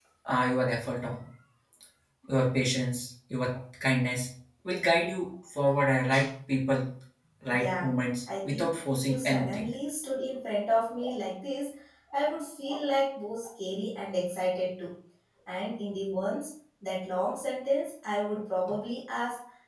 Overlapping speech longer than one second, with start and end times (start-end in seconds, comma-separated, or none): 8.4-9.7